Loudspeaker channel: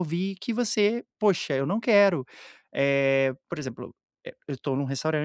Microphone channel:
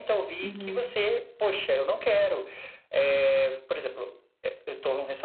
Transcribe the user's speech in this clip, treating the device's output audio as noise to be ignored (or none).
Uhum.